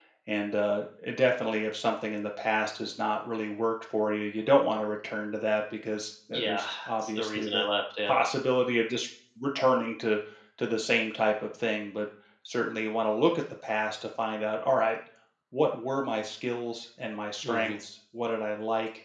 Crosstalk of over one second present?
Yes, from 6.3 s

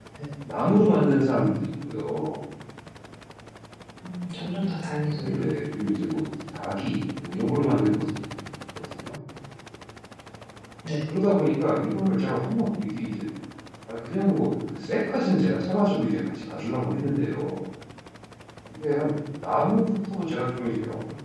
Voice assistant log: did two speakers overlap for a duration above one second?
No

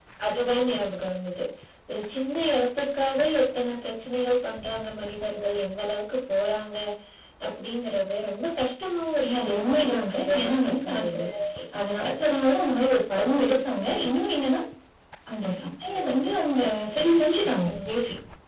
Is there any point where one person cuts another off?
Yes, from 9.2 s

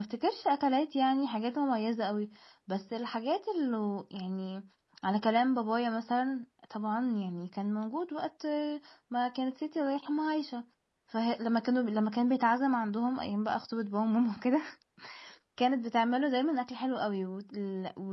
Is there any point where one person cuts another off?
No

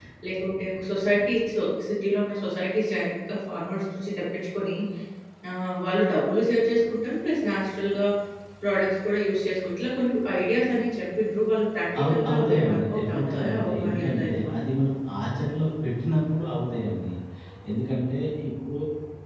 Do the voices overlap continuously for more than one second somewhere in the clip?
Yes, from 11.9 s

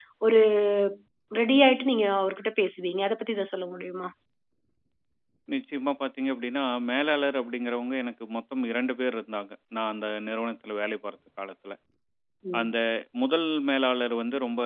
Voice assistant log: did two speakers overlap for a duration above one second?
No

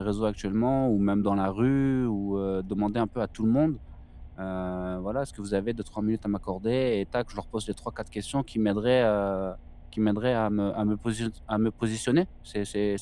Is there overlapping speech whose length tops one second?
No

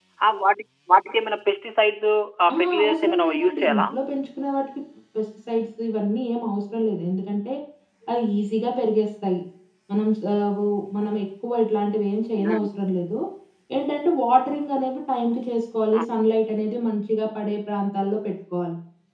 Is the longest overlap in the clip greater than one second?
Yes, from 2.5 s

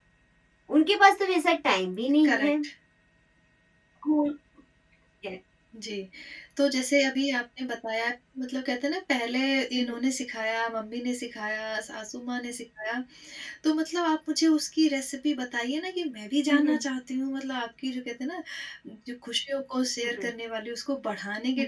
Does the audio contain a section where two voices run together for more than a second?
No

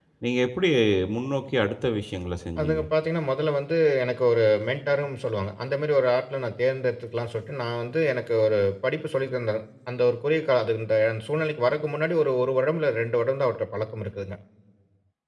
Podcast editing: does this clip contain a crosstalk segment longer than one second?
No

